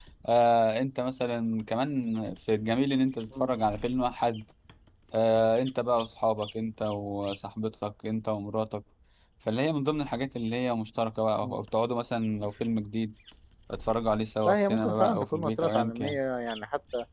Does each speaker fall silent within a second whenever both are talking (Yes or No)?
No